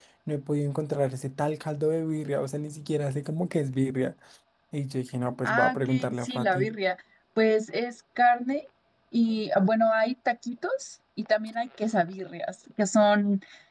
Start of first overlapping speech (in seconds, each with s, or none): 5.4 s